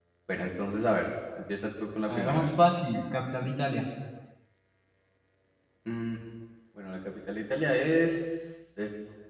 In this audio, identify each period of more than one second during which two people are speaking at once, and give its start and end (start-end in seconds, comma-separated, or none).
none